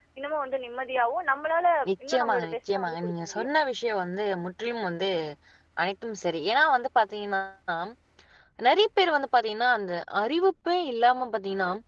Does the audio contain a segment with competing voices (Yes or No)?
Yes